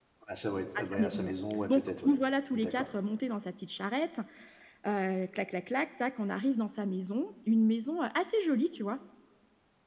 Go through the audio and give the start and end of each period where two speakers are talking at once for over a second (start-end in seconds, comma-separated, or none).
none